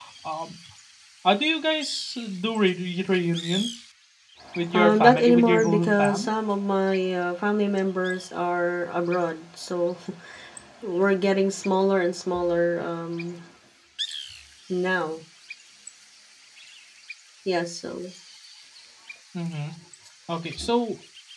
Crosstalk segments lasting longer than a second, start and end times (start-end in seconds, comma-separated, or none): 4.7-6.3